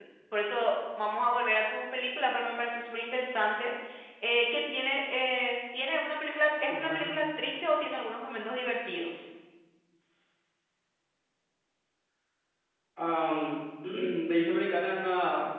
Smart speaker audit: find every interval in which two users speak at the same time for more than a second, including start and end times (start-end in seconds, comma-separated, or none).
none